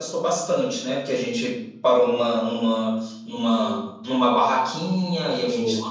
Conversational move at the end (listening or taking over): listening